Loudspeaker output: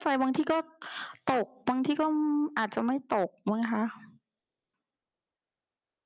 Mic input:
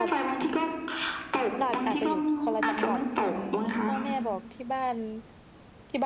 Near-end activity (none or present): present